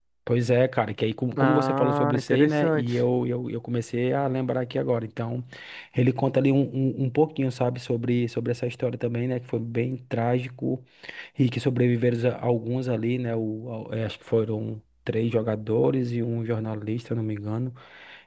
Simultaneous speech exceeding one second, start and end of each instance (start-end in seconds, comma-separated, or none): 1.4-3.0